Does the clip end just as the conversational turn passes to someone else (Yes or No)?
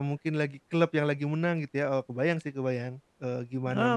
Yes